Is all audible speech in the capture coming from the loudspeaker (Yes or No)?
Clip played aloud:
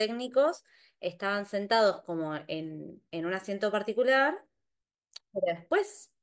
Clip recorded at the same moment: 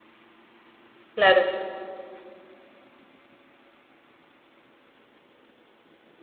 No